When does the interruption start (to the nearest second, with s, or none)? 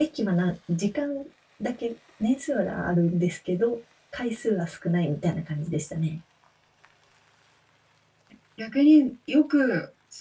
none